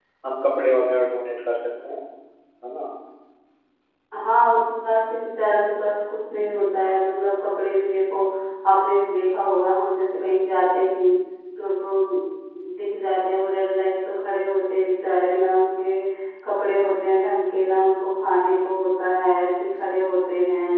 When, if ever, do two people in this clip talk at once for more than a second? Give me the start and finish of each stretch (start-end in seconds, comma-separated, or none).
none